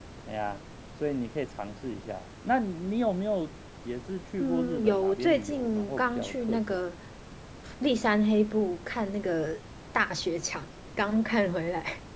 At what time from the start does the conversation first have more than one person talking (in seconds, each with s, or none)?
4.4 s